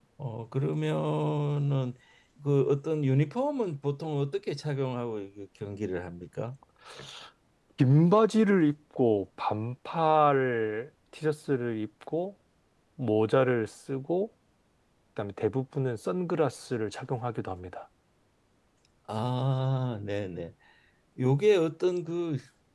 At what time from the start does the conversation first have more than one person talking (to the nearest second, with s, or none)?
none